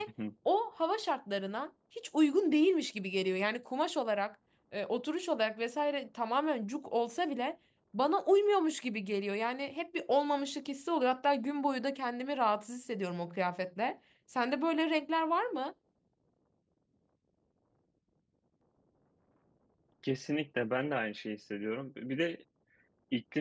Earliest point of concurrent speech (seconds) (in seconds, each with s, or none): none